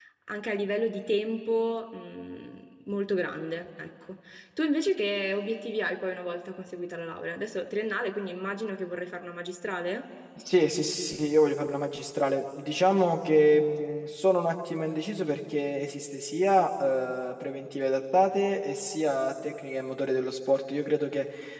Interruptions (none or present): none